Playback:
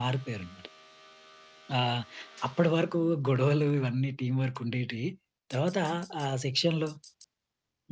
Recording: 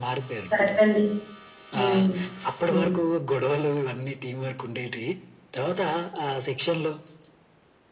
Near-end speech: present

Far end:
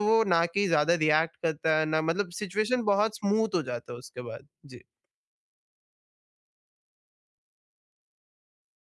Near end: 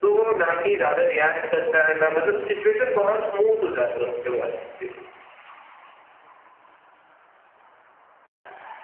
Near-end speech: none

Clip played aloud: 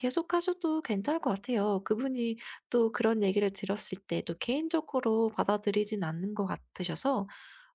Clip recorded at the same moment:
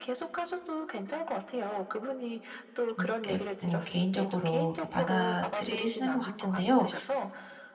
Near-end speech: present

